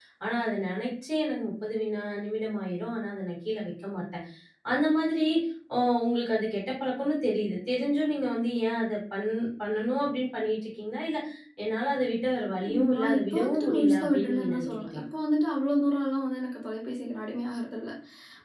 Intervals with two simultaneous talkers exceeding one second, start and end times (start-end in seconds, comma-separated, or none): 12.9-15.0